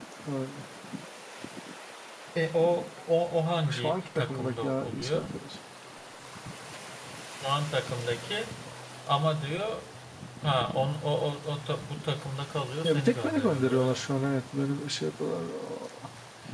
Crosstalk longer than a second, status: present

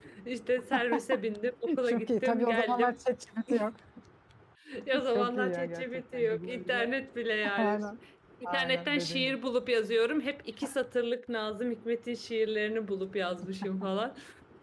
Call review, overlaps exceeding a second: present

